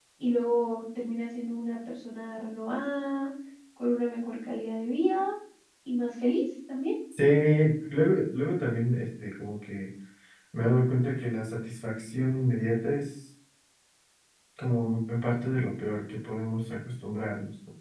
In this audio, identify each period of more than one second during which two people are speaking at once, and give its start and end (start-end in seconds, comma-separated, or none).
none